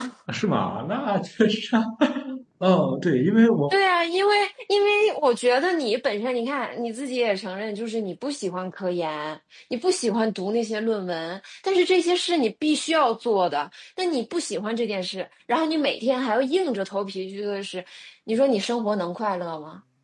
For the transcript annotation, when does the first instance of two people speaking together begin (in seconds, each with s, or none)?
none